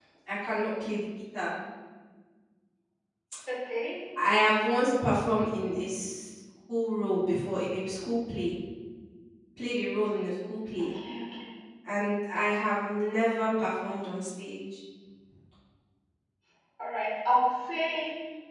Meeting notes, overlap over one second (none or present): none